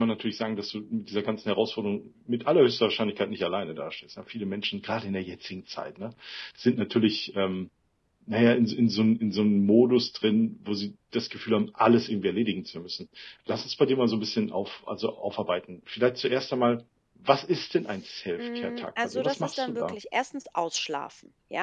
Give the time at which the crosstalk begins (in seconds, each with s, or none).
18.4 s